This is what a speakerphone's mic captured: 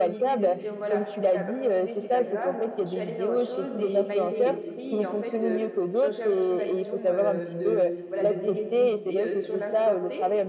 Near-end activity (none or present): present